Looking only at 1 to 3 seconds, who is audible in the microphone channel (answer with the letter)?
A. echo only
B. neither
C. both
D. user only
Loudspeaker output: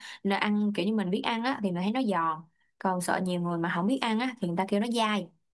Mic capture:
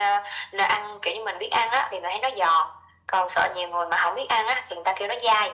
A